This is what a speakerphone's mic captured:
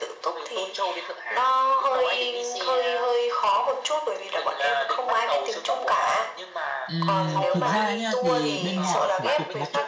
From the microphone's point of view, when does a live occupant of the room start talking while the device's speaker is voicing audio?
6.9 s

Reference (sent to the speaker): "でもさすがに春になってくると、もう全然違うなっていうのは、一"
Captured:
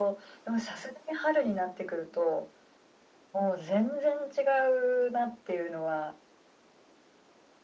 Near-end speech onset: none

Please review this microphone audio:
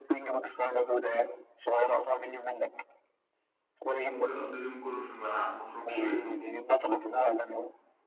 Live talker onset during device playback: 4.0 s

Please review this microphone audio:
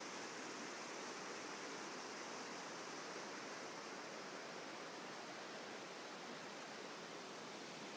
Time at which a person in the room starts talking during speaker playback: none

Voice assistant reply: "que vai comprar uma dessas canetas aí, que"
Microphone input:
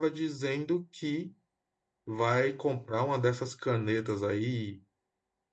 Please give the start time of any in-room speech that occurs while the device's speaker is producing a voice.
none

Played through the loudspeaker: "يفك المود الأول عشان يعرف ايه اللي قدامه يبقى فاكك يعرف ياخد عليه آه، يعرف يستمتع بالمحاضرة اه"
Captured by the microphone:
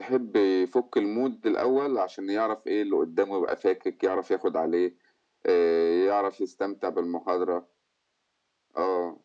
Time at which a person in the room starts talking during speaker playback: none

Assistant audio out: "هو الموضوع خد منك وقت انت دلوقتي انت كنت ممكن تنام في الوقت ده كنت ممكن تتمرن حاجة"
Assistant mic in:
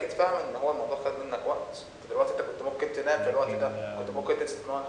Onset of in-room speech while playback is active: 3.1 s

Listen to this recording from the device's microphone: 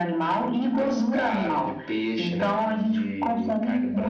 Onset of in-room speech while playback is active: none

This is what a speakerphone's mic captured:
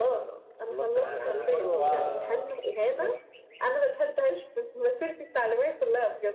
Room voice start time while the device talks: 0.9 s

